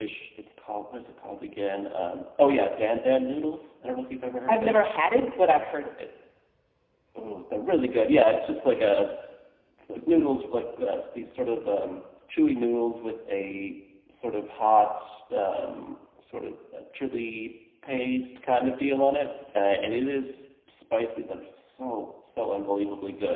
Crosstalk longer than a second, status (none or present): none